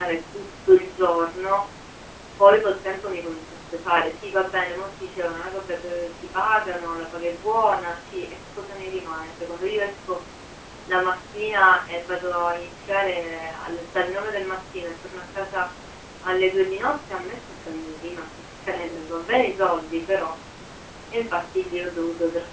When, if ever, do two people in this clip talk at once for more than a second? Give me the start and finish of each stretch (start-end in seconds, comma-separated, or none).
none